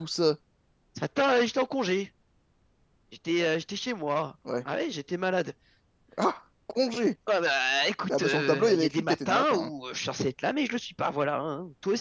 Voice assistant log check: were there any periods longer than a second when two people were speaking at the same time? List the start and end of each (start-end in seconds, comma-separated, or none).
8.1-9.7